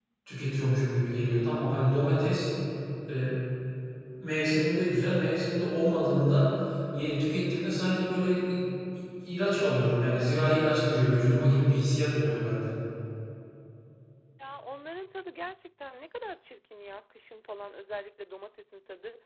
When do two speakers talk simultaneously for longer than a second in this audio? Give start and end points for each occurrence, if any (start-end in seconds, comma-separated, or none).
none